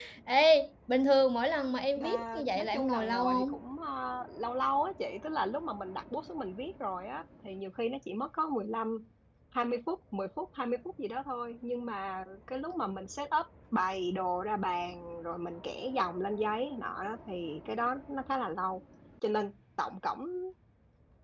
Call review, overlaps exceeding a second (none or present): present